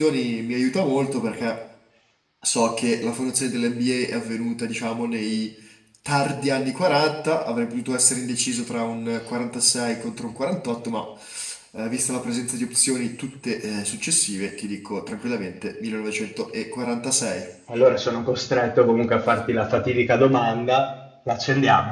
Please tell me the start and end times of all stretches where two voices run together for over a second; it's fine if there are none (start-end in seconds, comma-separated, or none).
none